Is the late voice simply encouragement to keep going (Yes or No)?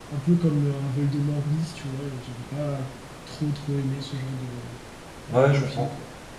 No